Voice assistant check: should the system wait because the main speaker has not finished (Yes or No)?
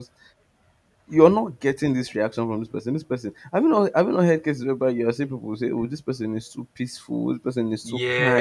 No